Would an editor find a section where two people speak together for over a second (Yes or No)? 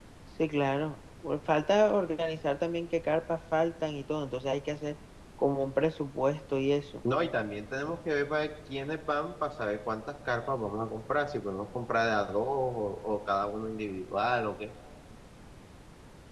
No